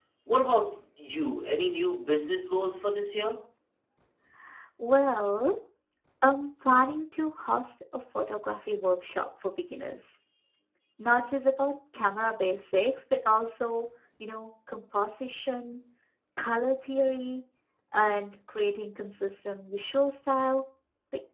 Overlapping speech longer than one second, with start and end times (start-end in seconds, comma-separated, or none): none